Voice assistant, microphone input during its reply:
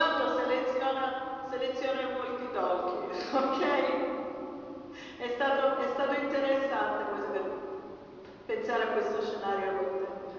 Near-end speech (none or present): none